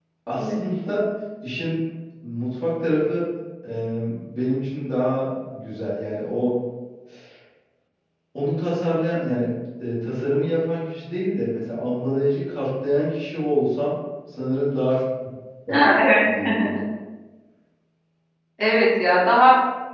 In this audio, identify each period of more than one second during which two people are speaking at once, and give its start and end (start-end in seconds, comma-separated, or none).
none